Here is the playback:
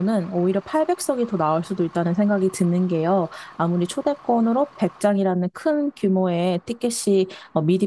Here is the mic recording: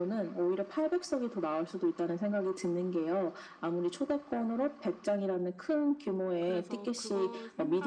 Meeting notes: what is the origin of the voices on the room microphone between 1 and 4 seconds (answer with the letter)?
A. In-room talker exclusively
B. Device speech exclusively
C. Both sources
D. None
B